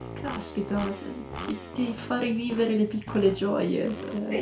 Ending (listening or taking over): taking over